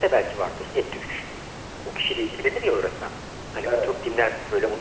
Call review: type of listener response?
listening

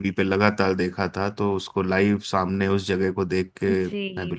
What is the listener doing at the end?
taking over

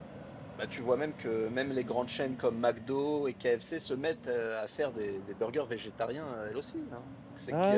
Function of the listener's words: taking over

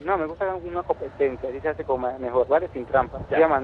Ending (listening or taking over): listening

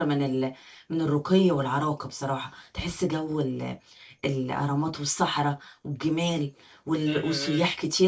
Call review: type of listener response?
listening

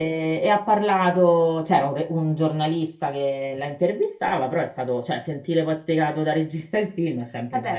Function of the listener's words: taking over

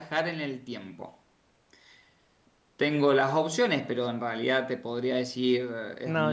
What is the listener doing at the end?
taking over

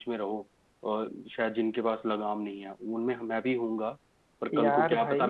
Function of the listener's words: taking over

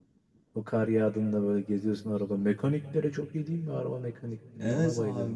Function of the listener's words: taking over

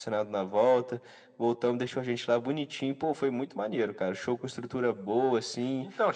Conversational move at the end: taking over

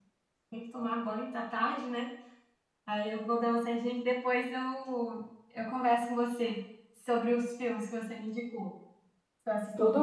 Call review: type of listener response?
listening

